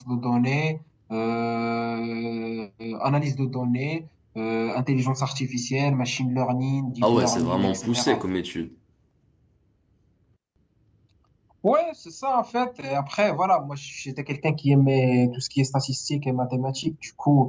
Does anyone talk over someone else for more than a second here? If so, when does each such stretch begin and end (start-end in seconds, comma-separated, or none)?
7.0-8.2